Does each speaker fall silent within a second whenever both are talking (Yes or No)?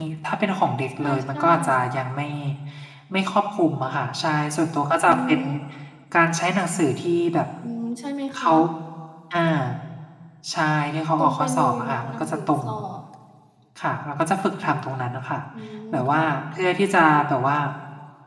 No